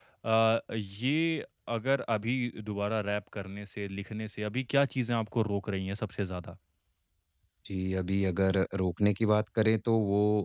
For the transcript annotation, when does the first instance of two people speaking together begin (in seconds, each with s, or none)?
none